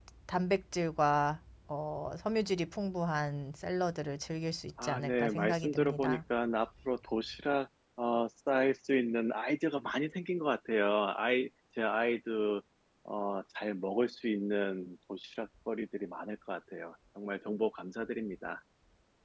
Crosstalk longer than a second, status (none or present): present